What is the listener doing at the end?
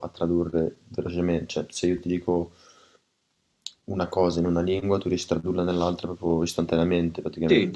taking over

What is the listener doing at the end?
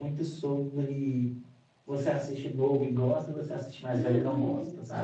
taking over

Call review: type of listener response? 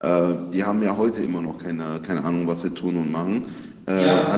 taking over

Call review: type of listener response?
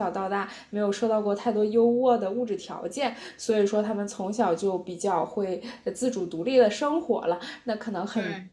listening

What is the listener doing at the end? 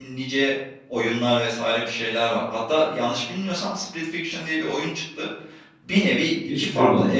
listening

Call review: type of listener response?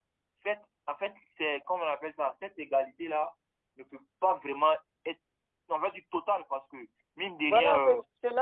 taking over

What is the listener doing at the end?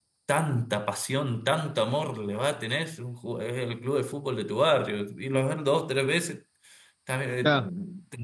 listening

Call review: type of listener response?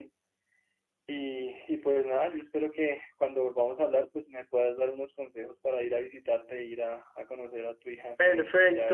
taking over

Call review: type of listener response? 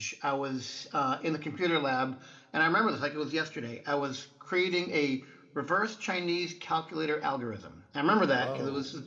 listening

